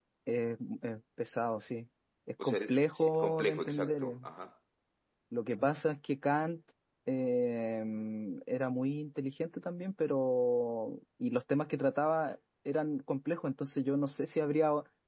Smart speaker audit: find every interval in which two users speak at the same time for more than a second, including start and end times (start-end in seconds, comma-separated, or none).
2.4-4.2